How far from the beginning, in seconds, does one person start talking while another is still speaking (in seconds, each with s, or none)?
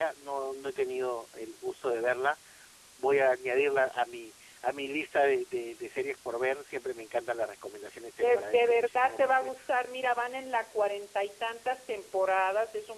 8.2 s